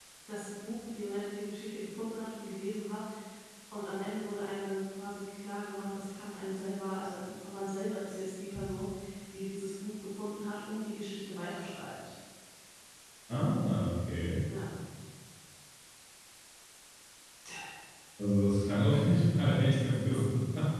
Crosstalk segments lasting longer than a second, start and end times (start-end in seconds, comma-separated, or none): none